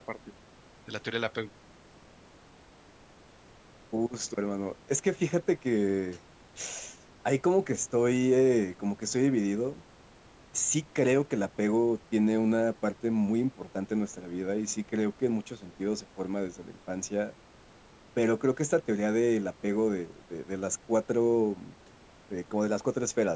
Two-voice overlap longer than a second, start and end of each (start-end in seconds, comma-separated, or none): none